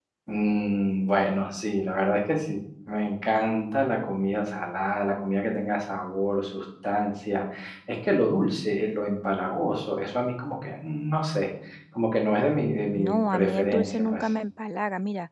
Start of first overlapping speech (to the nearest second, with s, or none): 13 s